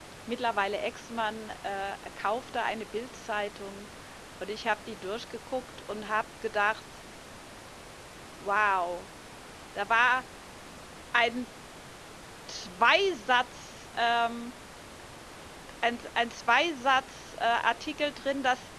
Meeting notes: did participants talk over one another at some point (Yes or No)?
No